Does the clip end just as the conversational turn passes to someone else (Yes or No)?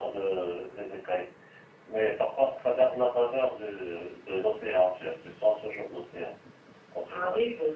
Yes